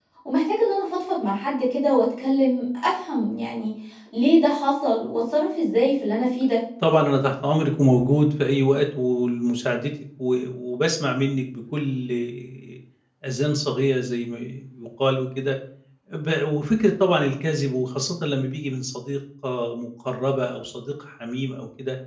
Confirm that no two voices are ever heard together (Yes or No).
Yes